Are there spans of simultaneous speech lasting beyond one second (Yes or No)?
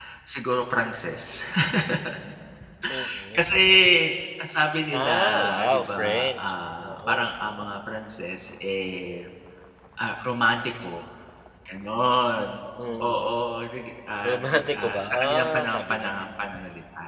Yes